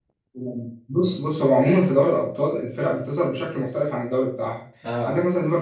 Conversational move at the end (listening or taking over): listening